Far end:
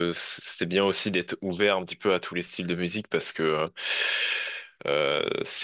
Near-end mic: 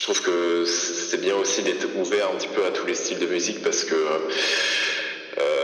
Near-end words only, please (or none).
none